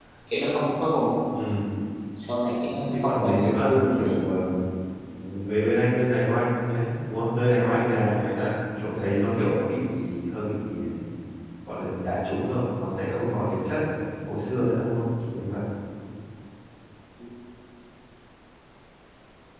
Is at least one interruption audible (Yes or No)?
Yes